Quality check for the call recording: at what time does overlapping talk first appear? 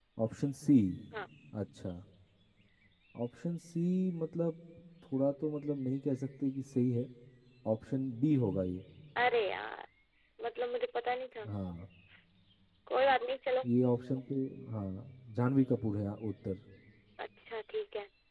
none

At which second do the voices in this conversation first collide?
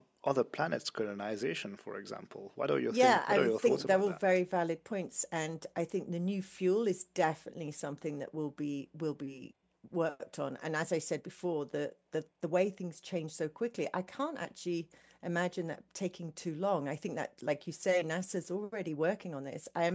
3 s

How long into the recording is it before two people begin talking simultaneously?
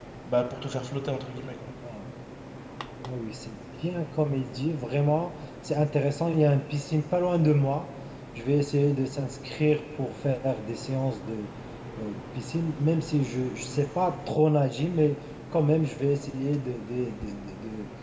none

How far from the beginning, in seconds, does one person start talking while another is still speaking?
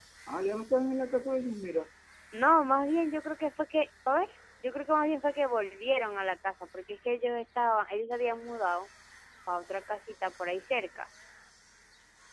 none

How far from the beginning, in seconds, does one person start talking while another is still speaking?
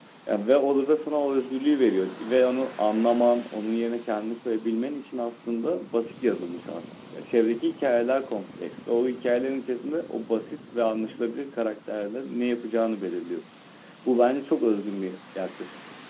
none

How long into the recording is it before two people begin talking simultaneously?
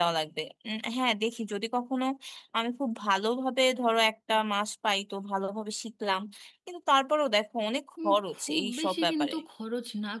8 s

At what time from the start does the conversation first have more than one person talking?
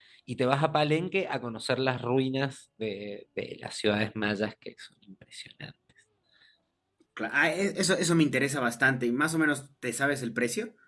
none

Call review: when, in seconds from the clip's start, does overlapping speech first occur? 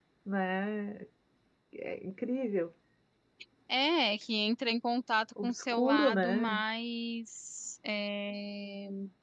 5 s

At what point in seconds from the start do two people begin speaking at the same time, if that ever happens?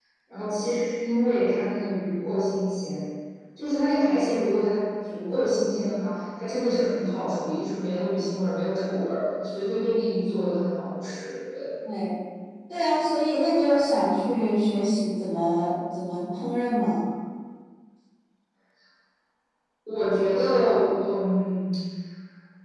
none

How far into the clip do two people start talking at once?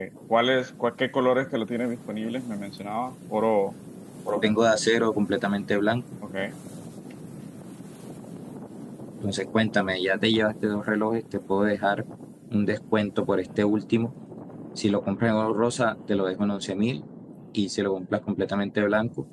none

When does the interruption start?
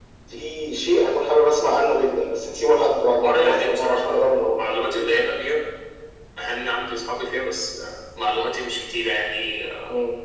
3 s

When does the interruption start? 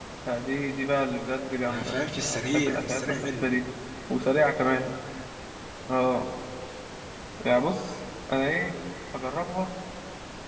2 s

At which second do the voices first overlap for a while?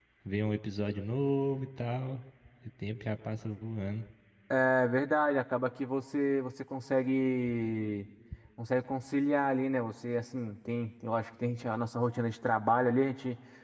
none

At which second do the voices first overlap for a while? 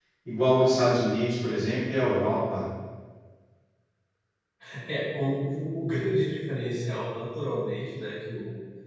none

